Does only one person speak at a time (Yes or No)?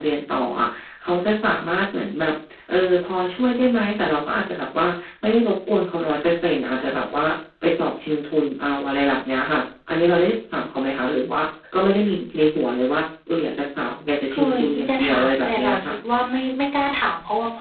No